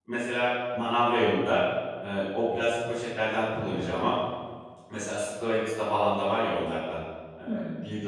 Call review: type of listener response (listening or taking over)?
listening